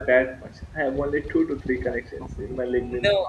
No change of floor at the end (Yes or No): No